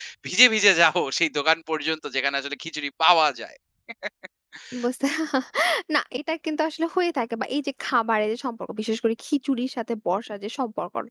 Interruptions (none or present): none